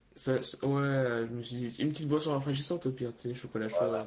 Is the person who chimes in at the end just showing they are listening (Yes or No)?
No